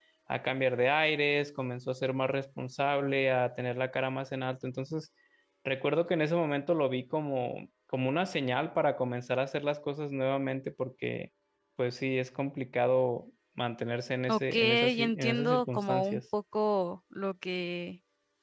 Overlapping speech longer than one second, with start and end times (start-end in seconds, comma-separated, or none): 14.3-16.2